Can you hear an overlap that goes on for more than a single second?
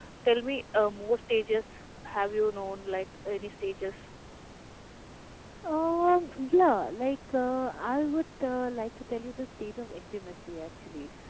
No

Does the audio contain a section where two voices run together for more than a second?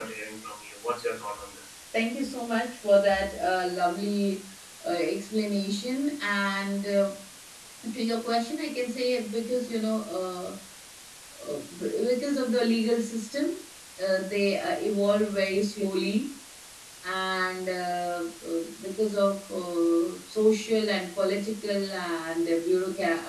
No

